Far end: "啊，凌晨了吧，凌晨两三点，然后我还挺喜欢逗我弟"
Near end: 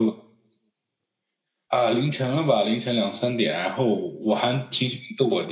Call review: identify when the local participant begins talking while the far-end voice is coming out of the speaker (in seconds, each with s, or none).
none